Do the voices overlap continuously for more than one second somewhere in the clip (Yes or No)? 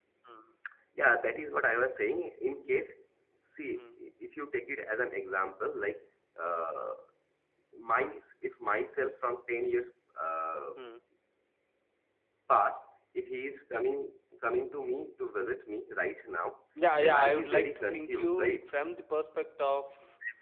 Yes